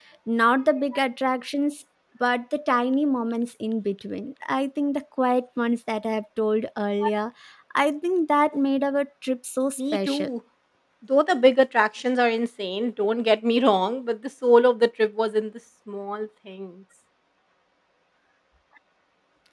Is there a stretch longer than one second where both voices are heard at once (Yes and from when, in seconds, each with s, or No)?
No